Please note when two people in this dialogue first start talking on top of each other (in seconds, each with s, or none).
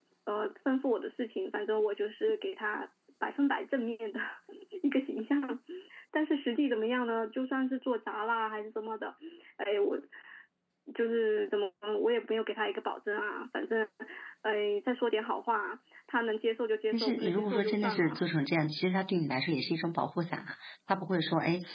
16.9 s